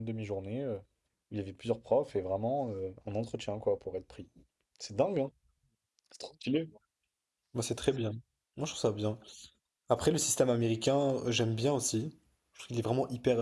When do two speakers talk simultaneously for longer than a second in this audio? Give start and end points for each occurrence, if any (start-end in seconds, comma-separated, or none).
none